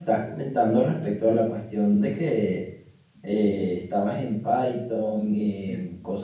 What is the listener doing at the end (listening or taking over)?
listening